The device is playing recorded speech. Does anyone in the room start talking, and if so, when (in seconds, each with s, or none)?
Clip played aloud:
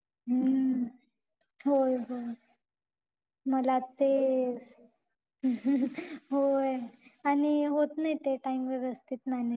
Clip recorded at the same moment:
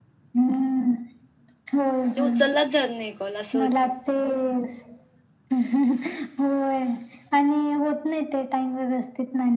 2.0 s